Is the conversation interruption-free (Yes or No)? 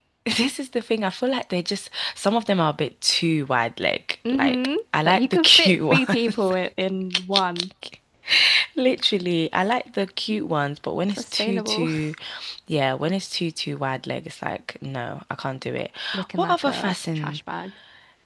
No